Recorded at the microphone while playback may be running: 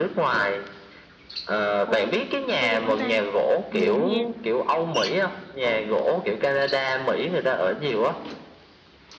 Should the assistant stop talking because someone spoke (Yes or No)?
Yes